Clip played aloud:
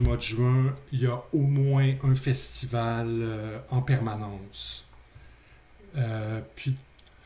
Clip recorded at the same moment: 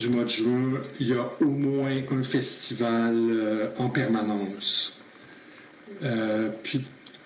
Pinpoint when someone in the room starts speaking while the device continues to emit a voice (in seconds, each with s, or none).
none